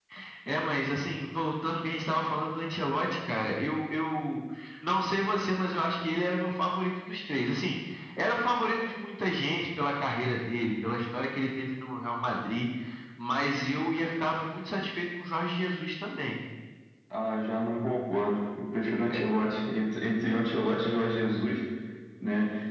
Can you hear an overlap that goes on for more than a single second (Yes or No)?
No